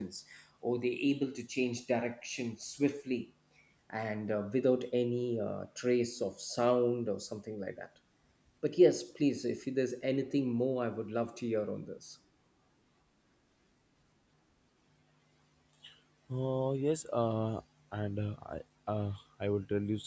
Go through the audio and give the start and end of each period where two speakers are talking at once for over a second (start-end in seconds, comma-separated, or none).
none